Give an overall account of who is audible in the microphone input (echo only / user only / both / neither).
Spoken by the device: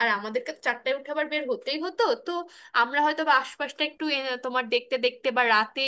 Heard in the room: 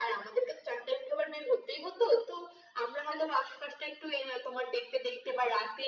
echo only